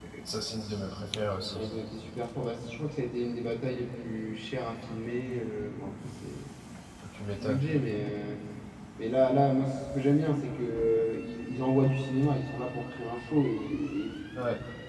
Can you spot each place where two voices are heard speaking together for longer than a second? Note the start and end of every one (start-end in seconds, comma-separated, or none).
none